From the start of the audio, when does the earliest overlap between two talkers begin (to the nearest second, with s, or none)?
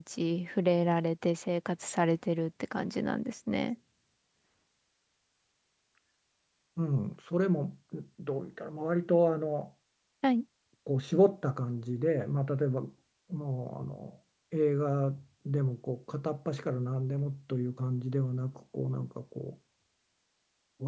none